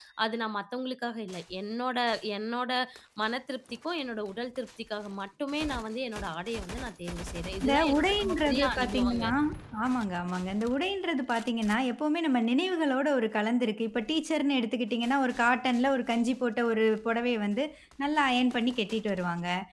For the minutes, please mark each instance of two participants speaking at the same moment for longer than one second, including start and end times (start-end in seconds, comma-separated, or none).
7.6-9.2